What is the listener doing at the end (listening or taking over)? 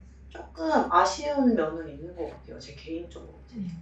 taking over